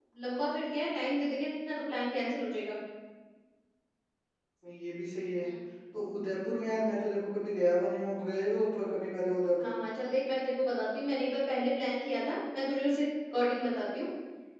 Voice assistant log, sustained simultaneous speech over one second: none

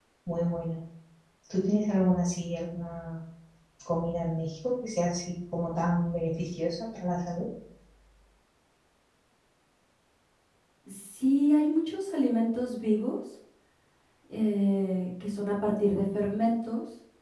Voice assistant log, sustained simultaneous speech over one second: none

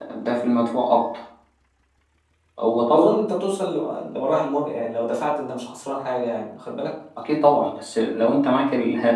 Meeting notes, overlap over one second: none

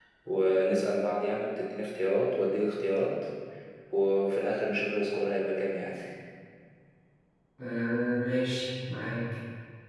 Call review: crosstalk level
none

